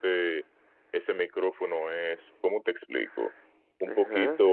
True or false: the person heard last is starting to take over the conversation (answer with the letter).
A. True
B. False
B